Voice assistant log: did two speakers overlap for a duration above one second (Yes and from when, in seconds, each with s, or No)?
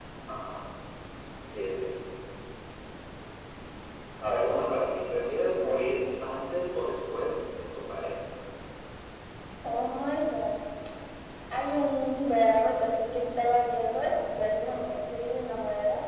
No